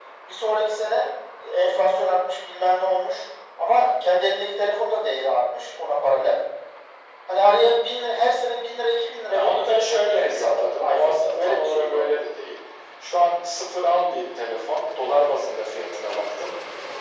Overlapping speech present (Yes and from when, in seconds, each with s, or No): Yes, from 9.2 s